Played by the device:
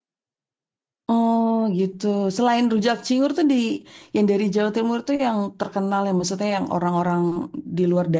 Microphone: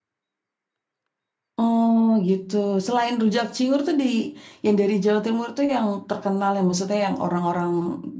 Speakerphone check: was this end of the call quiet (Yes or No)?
Yes